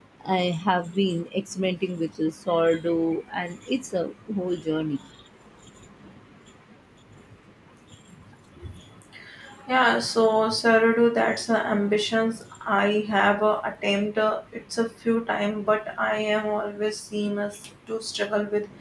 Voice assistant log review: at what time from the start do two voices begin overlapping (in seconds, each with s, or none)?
none